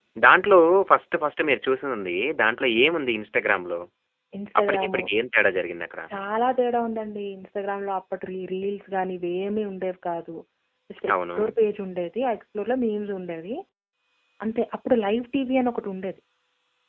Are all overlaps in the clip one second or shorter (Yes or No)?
Yes